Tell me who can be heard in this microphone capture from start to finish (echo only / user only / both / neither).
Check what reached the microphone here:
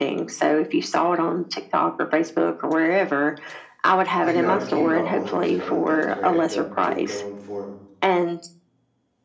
both